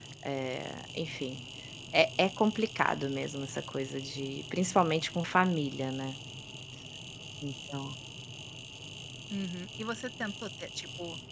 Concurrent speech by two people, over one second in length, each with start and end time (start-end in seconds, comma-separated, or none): none